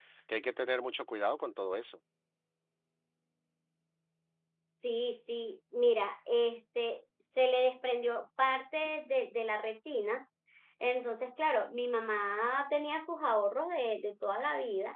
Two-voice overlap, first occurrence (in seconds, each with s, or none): none